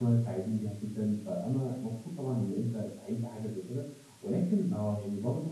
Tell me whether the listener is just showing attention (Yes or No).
Yes